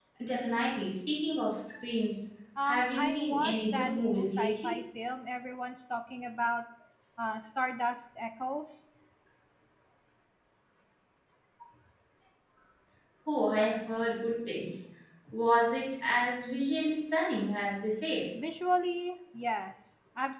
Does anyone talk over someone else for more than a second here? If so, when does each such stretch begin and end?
2.7-4.7

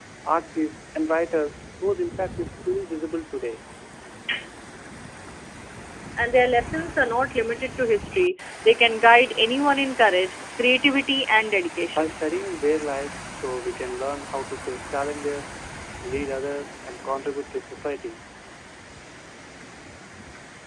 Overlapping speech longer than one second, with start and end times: none

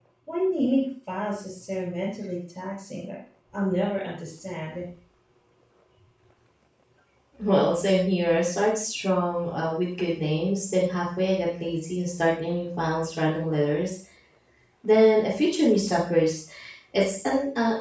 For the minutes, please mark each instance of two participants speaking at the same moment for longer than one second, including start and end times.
none

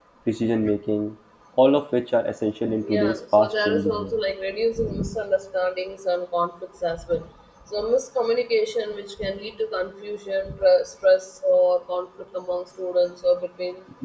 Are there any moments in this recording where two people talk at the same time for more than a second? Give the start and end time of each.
2.9-4.2

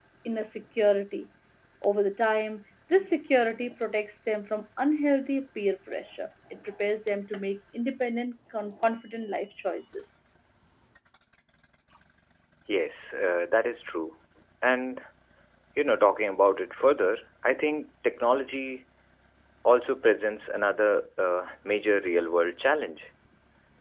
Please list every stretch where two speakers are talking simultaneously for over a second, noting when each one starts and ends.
none

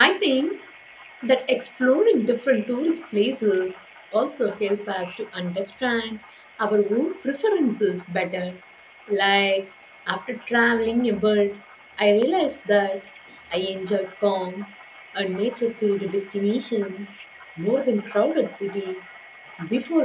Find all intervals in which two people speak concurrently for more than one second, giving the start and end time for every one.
none

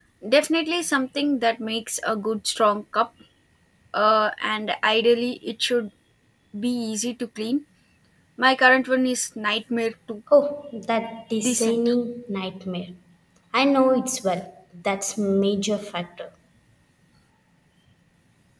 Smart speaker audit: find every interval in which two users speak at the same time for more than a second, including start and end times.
none

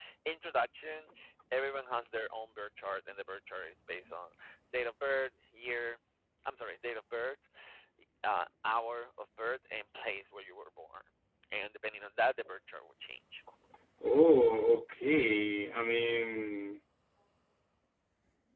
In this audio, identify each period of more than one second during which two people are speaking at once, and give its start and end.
none

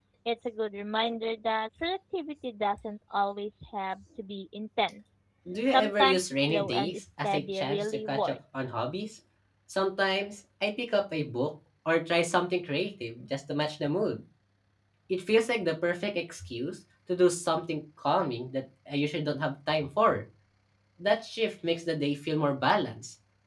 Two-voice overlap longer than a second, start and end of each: 5.7-8.8

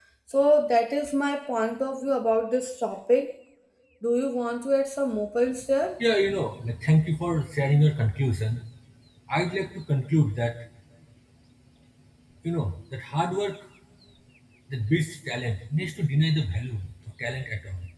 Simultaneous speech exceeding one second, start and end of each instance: none

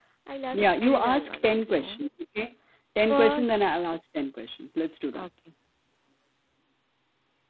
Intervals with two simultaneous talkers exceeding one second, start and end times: 0.5-2.0

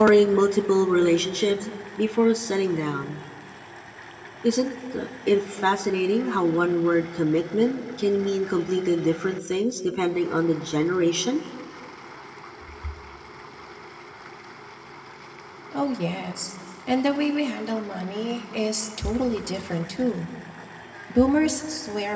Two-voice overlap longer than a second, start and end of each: none

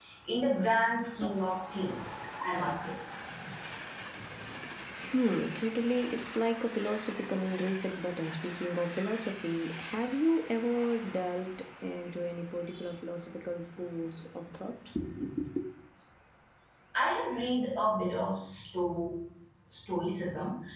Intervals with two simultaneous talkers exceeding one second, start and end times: none

